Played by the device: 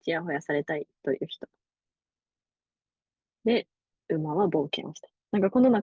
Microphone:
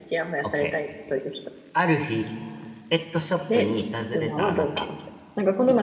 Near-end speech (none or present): present